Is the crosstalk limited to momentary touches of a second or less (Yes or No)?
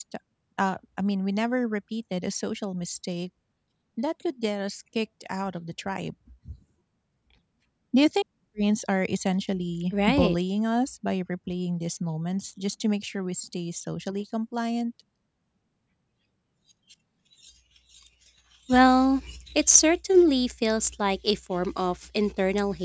Yes